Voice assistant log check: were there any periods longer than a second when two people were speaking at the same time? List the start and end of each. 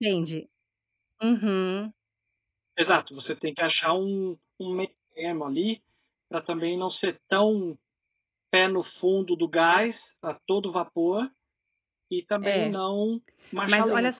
none

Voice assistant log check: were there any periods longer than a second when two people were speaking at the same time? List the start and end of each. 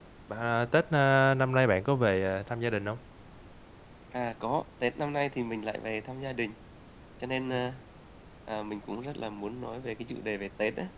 none

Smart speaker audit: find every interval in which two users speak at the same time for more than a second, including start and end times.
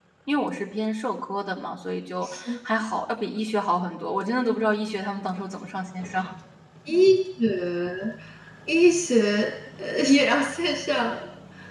none

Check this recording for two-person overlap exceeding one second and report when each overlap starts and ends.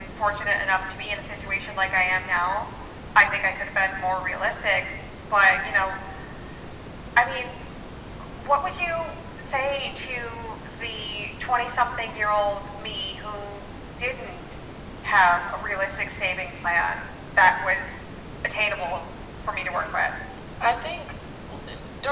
none

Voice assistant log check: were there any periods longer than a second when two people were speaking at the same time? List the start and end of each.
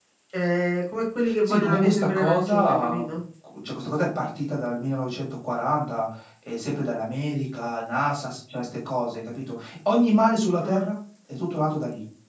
1.5-3.0

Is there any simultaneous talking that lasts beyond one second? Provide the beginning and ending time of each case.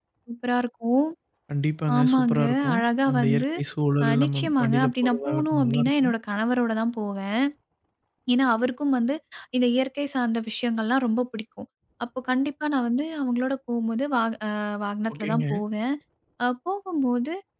2.0-3.4, 4.0-6.1

